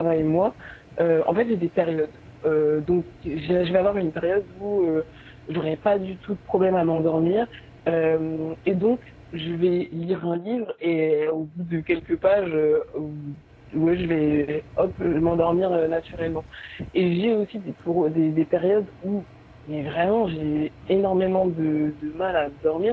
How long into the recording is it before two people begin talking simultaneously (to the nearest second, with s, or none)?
none